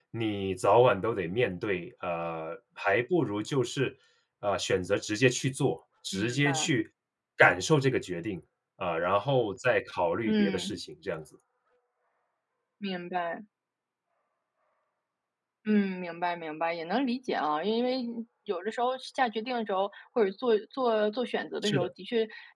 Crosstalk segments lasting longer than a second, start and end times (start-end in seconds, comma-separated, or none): none